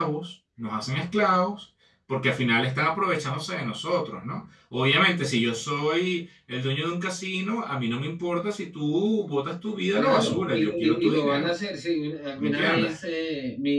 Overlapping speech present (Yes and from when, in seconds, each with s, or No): Yes, from 9.9 s